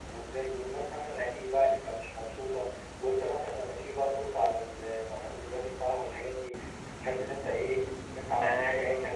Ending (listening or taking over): taking over